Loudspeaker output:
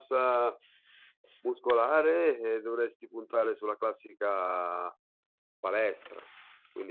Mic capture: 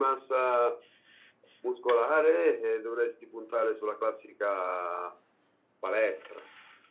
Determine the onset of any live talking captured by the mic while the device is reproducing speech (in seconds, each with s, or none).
none